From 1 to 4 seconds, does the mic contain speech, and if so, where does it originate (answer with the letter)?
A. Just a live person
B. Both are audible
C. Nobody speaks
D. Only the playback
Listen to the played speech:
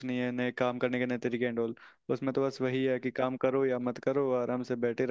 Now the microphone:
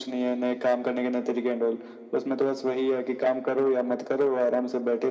D